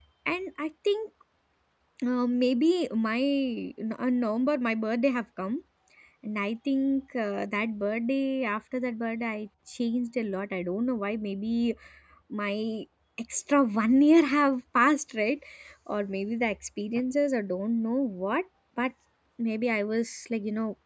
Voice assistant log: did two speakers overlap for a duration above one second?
No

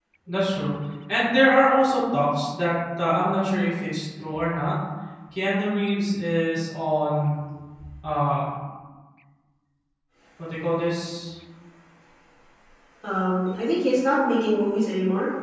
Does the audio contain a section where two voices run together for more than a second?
No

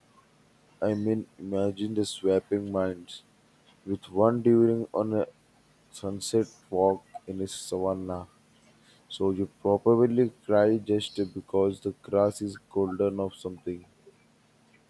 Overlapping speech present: No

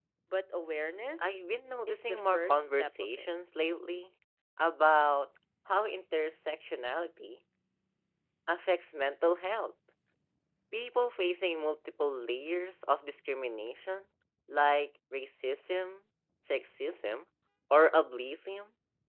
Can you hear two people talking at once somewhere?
Yes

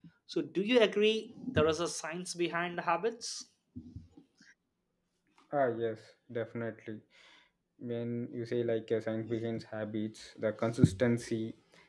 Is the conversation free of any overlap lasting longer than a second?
Yes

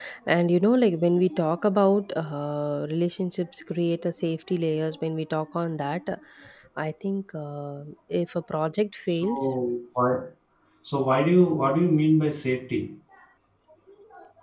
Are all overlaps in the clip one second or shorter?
Yes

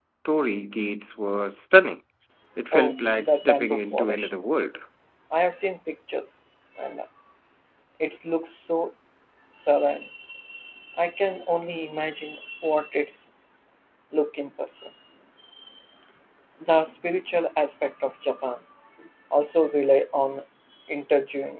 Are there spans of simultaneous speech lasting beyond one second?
Yes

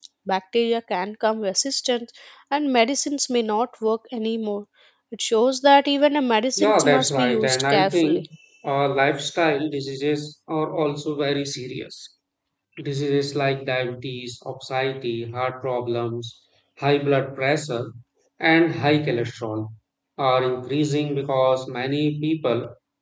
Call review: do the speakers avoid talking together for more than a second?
No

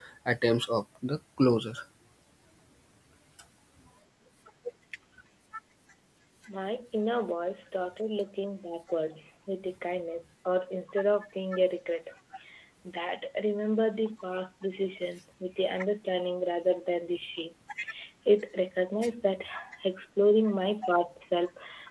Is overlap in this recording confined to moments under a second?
Yes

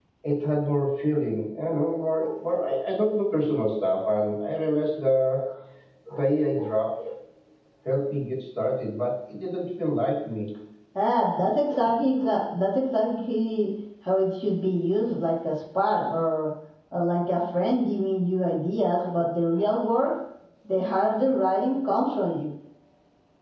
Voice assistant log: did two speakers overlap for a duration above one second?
No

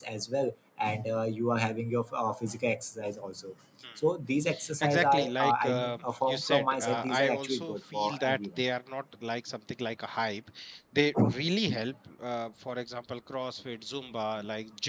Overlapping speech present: Yes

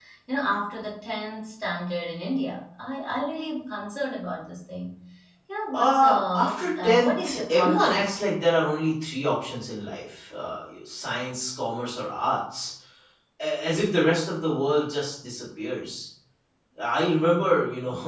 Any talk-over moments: Yes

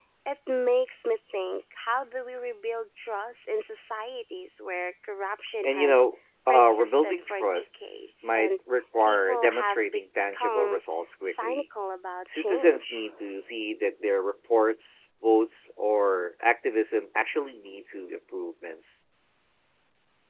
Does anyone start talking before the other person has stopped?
Yes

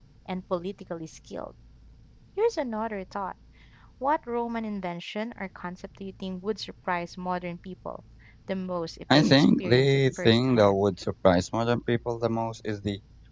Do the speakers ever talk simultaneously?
Yes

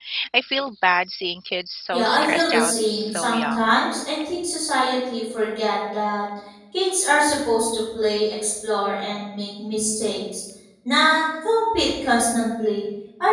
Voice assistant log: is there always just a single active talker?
No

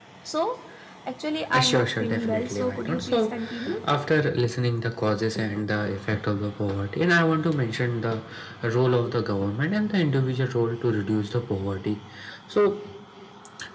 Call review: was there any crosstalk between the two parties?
Yes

